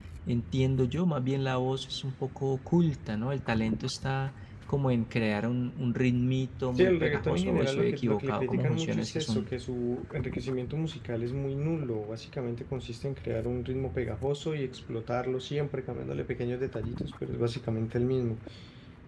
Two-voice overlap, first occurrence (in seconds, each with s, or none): 6.8 s